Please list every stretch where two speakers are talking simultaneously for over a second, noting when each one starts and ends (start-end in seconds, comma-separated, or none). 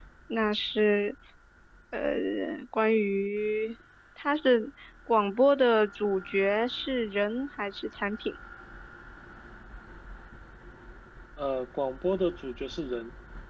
none